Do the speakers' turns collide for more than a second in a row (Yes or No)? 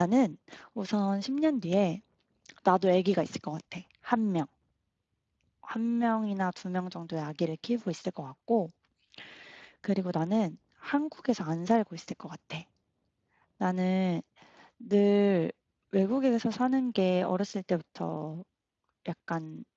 No